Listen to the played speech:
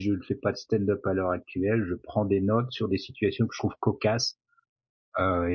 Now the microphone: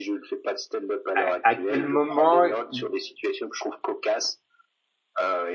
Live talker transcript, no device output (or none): à à quel moment y